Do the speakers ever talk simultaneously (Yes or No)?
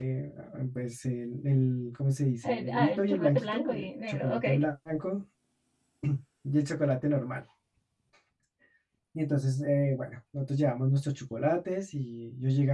Yes